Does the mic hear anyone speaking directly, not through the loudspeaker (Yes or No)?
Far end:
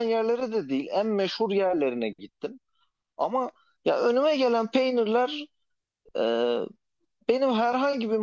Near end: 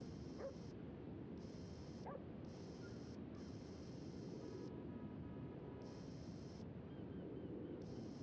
No